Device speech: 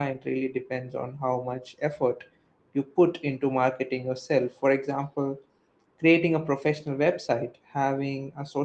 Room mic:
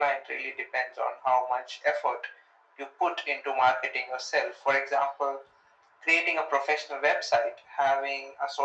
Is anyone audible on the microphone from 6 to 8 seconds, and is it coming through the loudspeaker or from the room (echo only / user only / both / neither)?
echo only